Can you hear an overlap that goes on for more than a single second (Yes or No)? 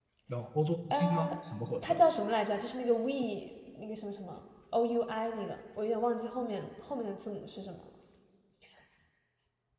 No